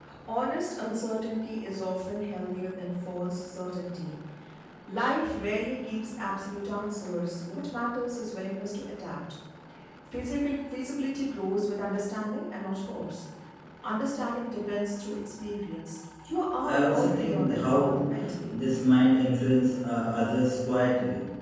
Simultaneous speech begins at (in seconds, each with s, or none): 16.6 s